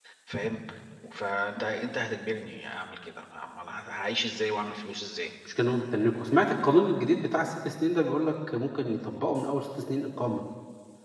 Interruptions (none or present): none